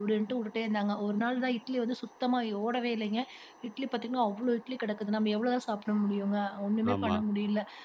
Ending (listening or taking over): listening